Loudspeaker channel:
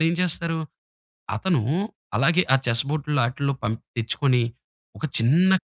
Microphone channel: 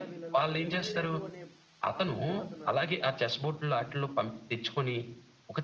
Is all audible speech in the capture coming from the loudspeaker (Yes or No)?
No